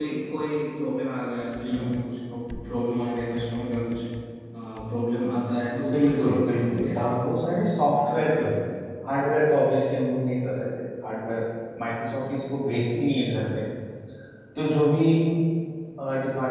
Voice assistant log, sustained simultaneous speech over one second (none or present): present